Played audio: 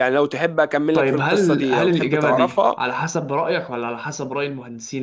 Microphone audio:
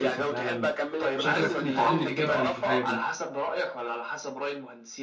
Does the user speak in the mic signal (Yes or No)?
Yes